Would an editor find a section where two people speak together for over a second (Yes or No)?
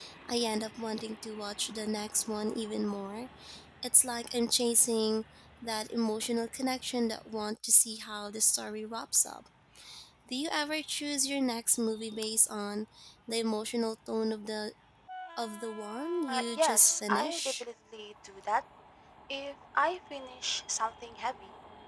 Yes